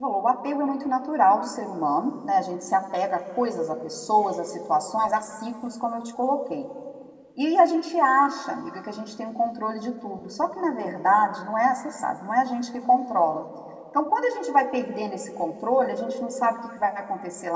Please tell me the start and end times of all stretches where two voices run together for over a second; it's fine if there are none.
none

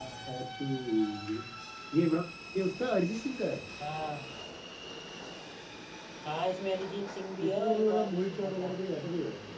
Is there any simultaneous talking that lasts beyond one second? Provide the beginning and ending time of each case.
7.4-8.7

